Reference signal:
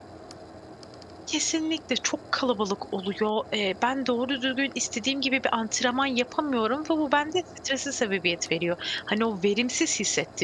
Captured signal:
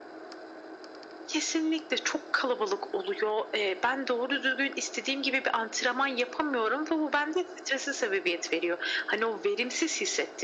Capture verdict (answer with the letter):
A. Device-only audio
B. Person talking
A